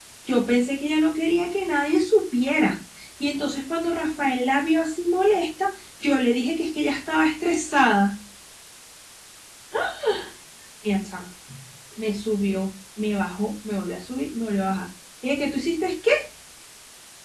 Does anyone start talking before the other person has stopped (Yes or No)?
No